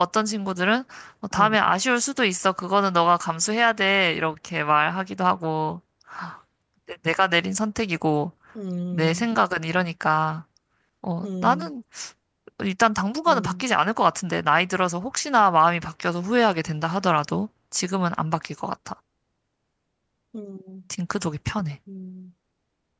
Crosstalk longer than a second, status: none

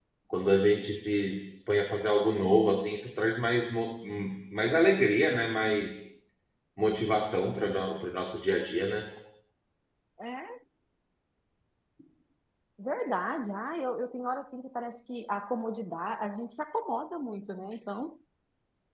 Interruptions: none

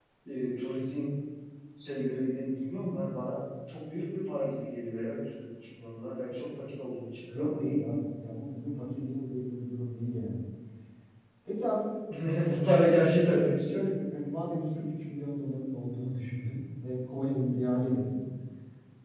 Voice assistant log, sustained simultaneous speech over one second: none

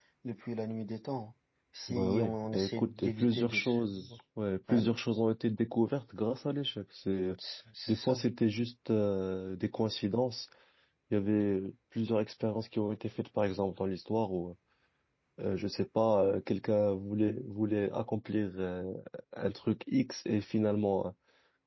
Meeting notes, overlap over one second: present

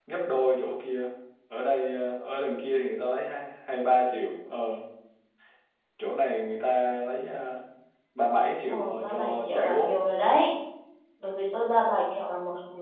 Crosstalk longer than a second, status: present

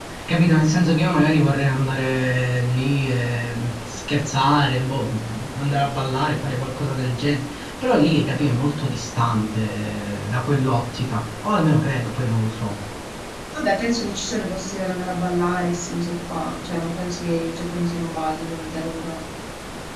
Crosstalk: none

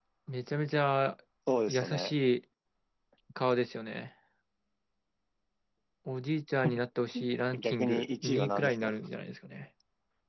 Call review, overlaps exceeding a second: present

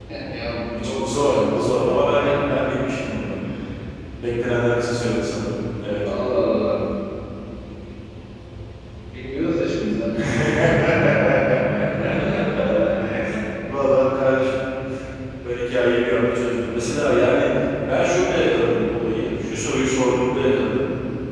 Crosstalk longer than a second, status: present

